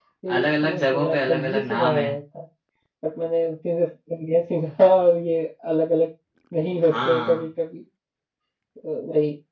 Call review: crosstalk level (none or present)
present